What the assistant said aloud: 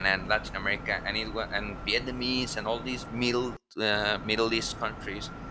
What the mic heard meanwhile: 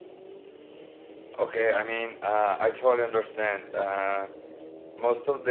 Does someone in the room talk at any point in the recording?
Yes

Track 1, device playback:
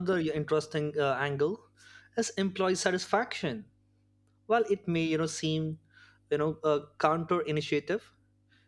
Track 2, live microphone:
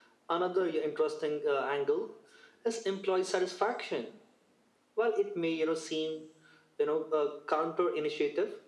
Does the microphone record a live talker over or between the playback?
No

